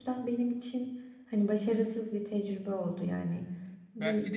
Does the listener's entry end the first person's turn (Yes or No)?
Yes